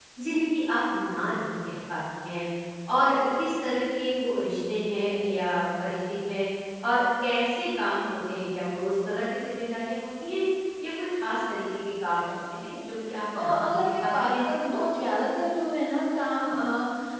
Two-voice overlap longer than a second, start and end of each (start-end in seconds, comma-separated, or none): 13.4-14.8